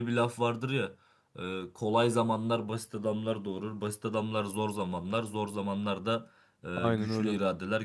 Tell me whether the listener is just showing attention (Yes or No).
Yes